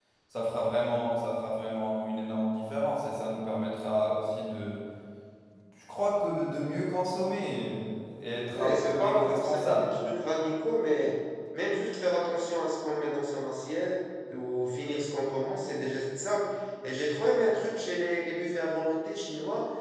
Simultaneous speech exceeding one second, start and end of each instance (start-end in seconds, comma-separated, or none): 8.5-9.9